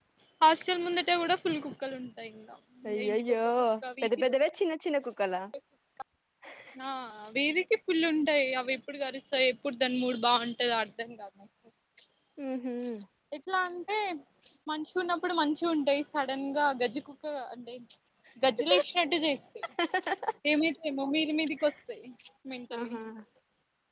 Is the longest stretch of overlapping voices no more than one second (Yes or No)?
Yes